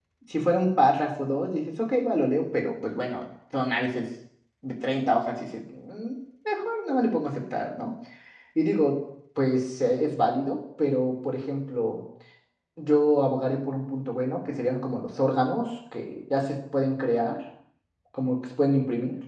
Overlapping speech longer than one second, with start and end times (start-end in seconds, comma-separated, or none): none